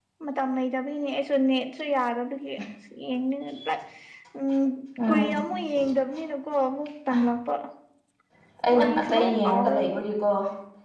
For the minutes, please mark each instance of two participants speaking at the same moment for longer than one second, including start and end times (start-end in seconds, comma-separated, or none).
8.8-10.0